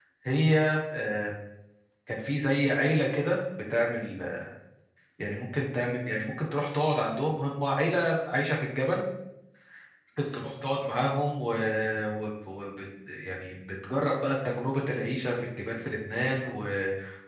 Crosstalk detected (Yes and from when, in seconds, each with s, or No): No